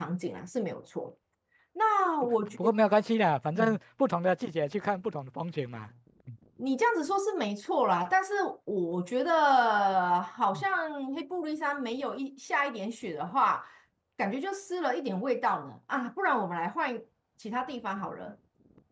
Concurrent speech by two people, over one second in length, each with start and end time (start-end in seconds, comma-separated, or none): none